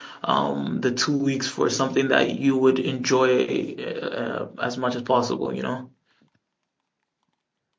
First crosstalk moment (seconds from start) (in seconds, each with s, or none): none